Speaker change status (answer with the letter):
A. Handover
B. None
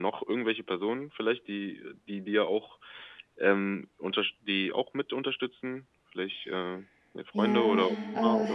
A